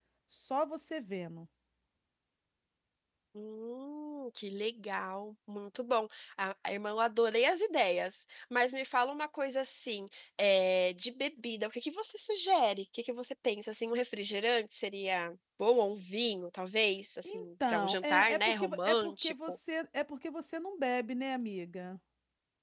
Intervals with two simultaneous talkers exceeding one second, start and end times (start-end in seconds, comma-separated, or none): 17.2-19.6